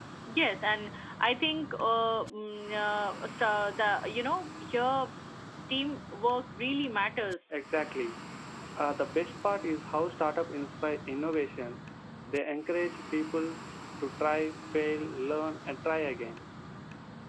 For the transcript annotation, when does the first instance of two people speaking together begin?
none

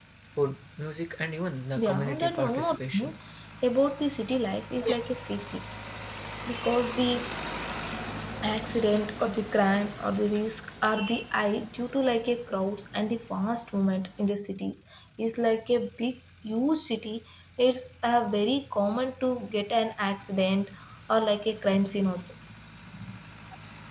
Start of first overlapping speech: 1.8 s

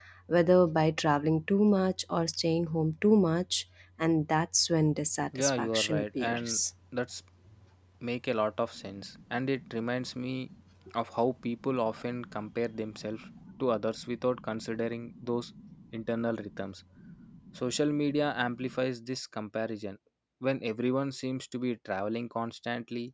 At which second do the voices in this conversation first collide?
5.4 s

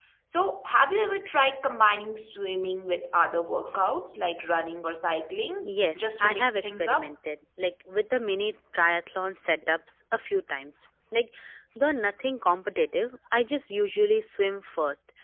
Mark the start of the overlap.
5.6 s

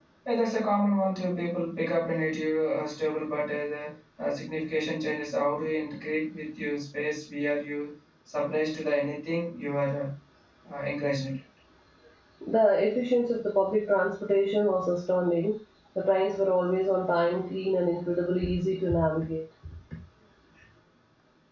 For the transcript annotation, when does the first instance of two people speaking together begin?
none

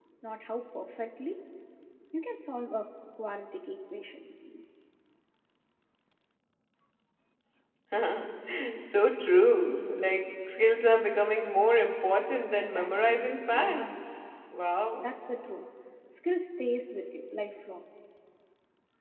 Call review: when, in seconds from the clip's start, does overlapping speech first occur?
12.5 s

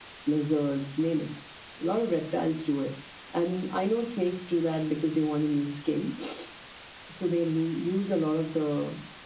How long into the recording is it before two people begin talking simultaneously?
none

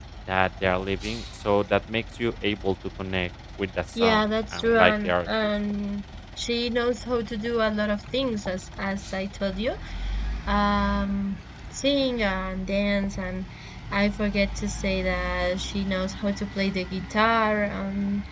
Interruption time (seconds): 4.0 s

